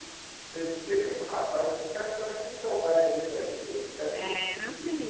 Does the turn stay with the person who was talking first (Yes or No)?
No